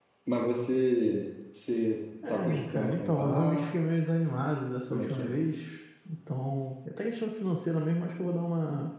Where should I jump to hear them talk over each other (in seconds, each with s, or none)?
2.3 s